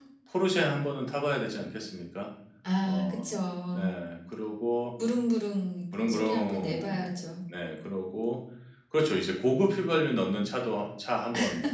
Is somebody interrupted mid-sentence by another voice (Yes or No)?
Yes